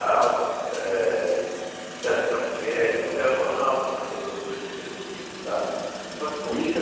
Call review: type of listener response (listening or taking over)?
taking over